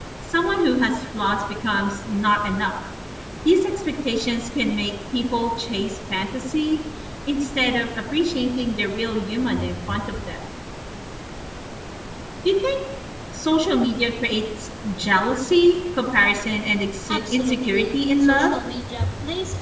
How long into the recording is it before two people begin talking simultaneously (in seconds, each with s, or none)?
17.1 s